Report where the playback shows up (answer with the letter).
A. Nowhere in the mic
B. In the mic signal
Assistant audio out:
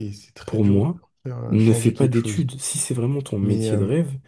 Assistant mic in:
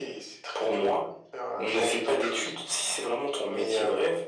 B